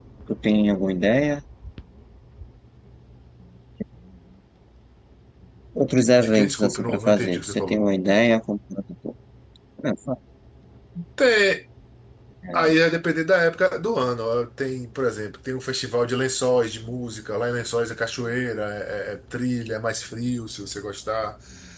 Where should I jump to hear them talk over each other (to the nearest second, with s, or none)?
6 s